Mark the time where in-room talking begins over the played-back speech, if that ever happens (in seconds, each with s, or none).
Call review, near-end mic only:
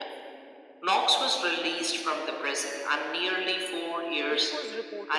4.2 s